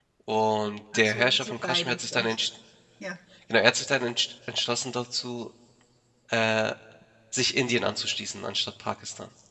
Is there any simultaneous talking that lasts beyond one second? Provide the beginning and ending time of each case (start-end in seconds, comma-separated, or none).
0.9-2.4